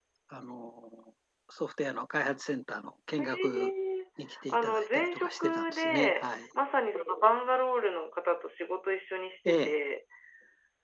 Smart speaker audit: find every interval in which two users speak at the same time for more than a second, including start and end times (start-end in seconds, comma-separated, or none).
4.5-6.2